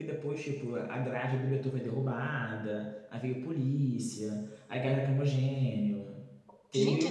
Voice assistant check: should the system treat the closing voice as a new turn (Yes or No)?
No